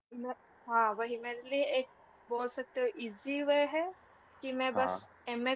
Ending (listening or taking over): listening